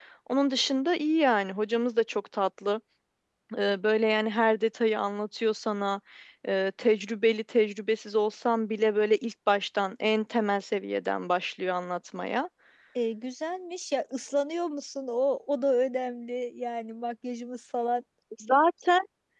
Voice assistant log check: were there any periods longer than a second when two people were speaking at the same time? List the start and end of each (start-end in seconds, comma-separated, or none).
none